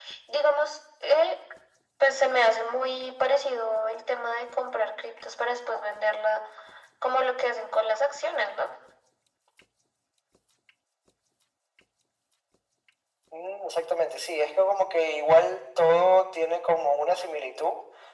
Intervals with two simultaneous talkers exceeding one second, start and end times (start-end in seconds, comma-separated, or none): none